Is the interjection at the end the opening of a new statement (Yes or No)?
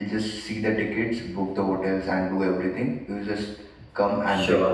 Yes